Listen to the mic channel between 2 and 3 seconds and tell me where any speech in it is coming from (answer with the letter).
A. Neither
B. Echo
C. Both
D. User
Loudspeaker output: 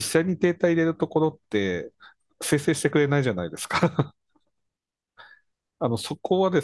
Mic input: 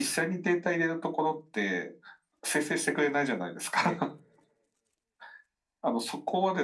B